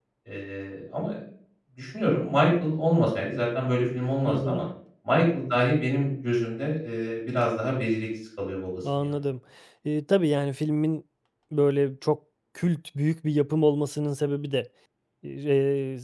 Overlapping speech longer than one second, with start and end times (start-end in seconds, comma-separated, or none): none